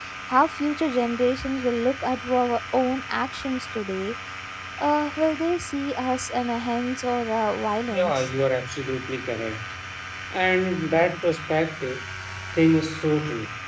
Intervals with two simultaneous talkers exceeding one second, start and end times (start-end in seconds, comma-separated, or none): none